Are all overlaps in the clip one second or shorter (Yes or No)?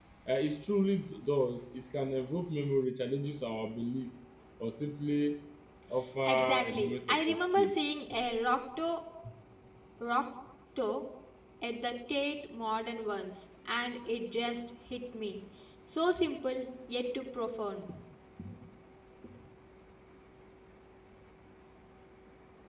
No